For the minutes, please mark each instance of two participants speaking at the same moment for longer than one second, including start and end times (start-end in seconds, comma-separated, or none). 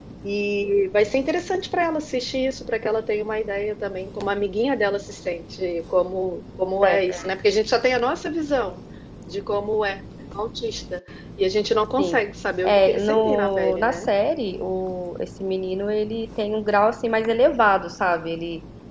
12.6-14.1